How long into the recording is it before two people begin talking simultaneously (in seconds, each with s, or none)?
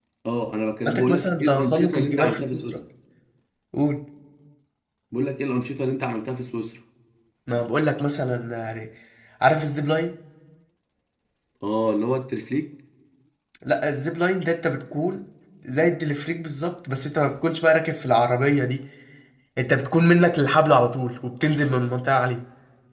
0.9 s